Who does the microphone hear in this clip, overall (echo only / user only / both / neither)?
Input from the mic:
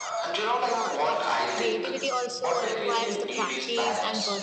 both